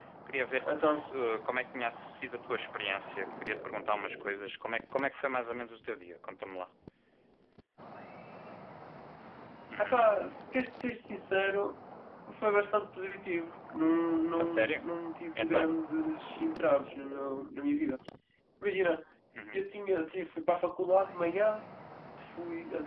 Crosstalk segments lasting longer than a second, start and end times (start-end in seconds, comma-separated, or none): none